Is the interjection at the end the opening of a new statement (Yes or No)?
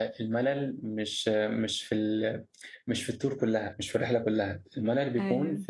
No